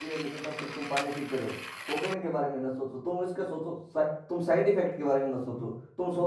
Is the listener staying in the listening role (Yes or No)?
No